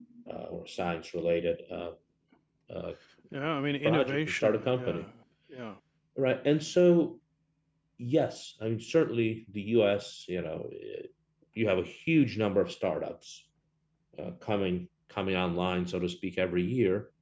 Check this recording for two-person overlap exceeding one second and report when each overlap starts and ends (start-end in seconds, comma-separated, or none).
3.9-5.0